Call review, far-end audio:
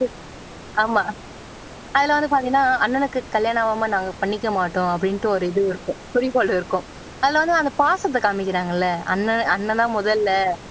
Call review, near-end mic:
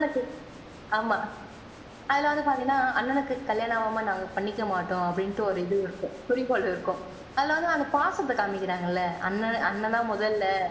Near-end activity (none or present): none